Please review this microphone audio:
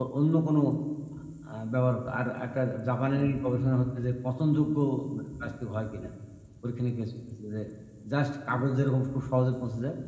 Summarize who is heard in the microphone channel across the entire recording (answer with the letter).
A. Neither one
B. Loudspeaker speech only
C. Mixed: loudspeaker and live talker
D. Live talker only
D